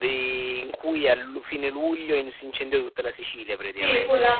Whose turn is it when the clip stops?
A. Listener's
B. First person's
A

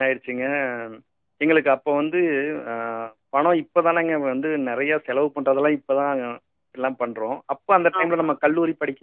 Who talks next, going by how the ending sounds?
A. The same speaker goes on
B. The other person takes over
A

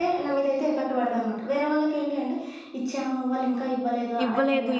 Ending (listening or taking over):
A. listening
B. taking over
B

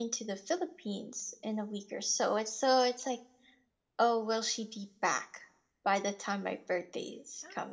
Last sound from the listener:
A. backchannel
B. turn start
B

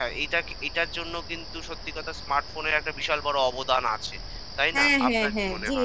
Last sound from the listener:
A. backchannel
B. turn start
B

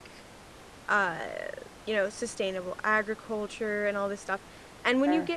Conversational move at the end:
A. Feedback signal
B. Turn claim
A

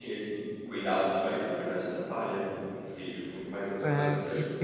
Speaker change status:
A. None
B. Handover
B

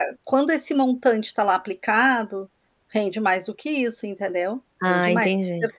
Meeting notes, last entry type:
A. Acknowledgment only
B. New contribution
A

